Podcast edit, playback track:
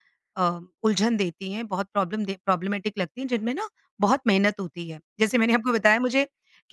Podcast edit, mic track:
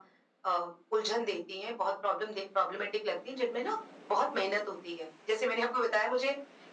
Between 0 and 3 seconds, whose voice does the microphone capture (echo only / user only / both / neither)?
echo only